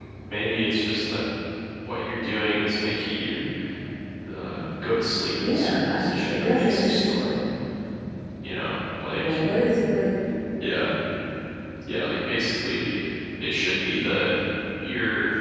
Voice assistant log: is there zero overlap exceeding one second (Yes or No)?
No